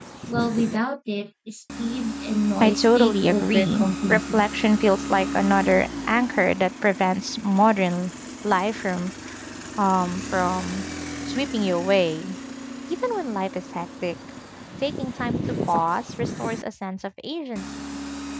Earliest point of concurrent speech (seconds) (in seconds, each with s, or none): 2.6 s